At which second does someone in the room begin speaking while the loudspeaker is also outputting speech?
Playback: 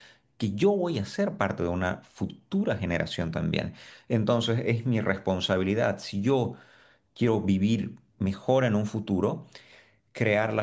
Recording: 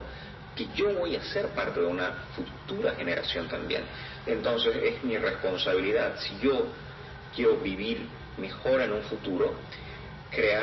none

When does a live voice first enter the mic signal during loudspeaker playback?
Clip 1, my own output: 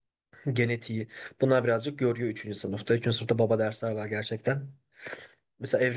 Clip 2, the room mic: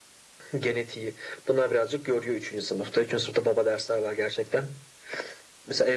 none

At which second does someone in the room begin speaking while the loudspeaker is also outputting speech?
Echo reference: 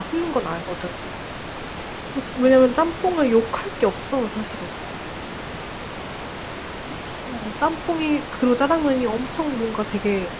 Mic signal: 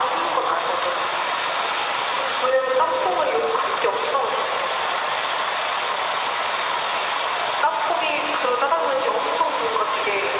none

